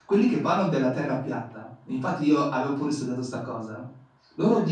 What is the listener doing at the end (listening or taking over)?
listening